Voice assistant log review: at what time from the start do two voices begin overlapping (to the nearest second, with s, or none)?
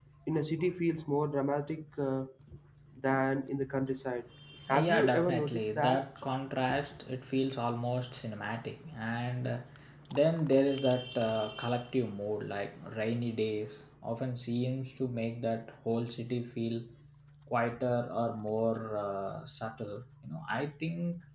5 s